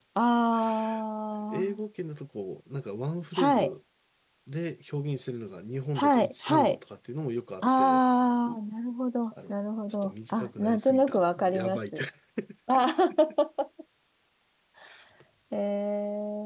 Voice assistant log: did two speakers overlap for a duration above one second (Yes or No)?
Yes